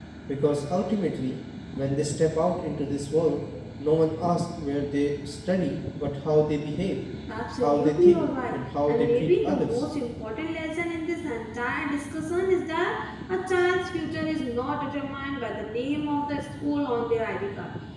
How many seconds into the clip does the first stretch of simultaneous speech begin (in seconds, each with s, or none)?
7.6 s